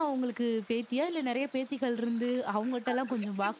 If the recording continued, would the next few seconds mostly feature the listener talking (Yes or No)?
No